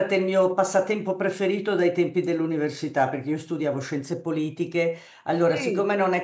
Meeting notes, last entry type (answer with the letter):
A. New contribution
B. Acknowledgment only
B